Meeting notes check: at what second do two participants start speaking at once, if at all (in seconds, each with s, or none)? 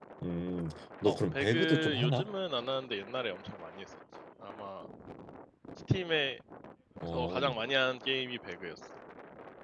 1.1 s